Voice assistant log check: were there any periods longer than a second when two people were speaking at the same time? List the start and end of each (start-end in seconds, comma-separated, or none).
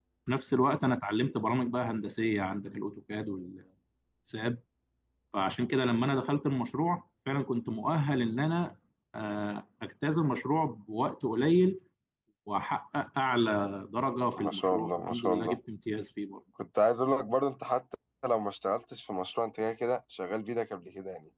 14.4-15.6